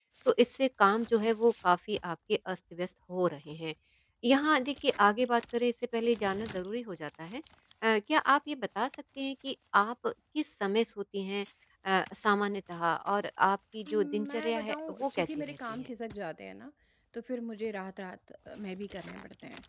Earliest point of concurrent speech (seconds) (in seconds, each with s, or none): 13.9 s